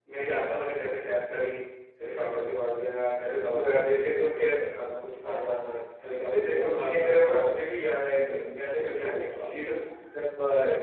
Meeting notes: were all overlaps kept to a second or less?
No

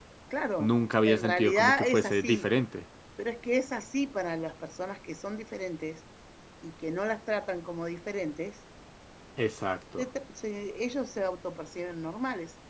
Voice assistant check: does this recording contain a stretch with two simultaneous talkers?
Yes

